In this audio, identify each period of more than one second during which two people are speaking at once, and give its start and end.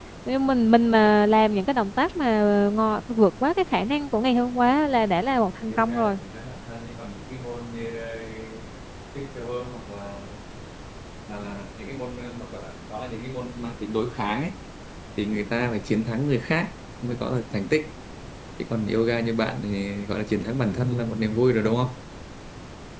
none

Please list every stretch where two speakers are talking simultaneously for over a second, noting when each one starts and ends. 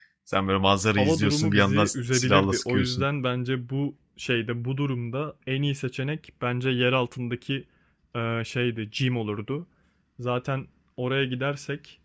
1.0-3.0

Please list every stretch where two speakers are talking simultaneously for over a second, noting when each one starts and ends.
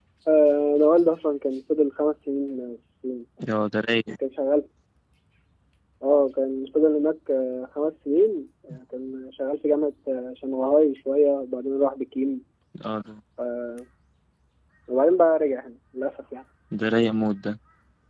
none

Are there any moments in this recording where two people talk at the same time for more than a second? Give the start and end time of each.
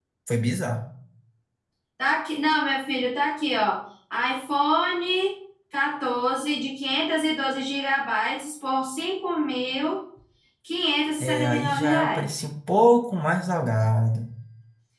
11.2-12.4

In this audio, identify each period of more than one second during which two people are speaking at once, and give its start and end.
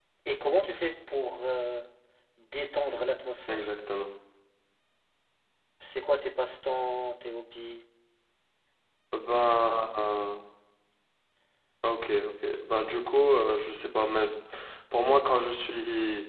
none

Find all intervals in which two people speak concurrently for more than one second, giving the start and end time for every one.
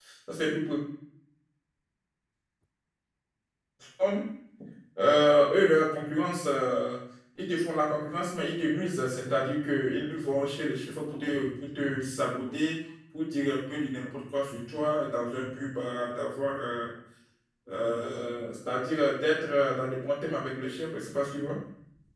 none

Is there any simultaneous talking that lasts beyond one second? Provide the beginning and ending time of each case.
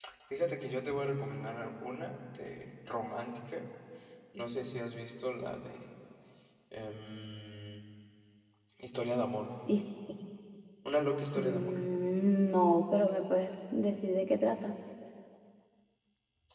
none

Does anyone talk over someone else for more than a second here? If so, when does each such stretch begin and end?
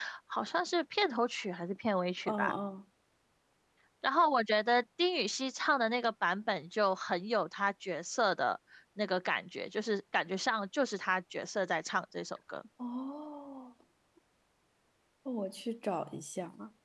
none

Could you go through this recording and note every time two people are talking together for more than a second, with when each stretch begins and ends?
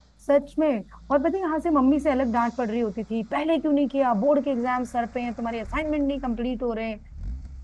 none

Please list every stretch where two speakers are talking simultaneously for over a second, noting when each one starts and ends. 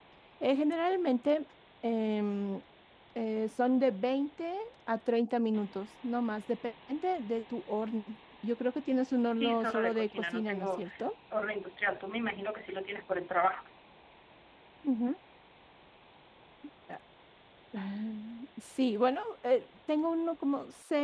9.3-10.8

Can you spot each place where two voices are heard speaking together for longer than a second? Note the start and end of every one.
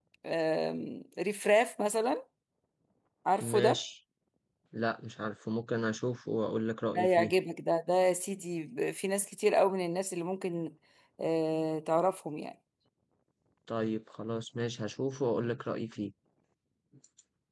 none

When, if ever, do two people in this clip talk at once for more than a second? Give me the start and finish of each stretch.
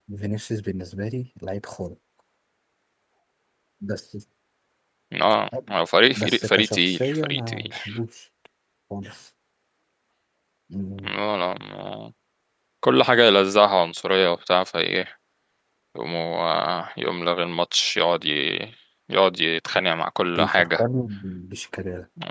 6.2-7.7

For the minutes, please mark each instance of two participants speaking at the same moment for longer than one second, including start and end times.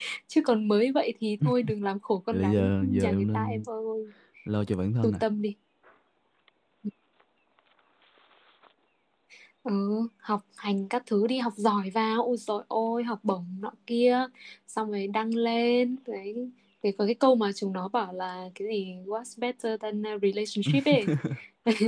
2.3-3.6

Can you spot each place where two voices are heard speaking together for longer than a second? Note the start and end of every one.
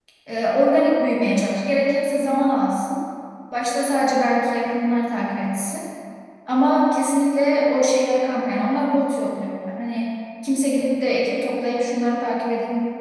none

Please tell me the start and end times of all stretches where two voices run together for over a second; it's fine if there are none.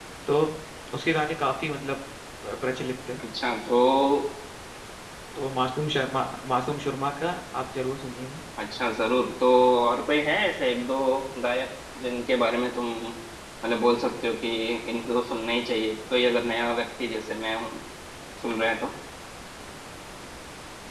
none

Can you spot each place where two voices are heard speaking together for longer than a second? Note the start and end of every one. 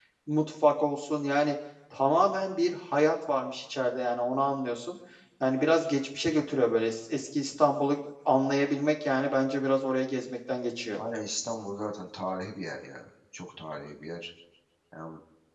none

